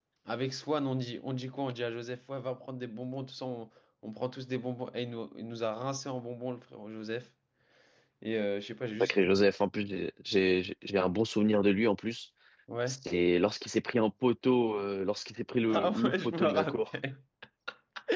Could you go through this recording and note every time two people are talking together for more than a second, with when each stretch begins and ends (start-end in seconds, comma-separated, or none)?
15.7-16.9